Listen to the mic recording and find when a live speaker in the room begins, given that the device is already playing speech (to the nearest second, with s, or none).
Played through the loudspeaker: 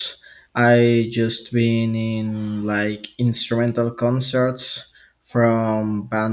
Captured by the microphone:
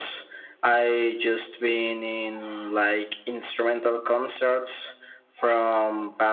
none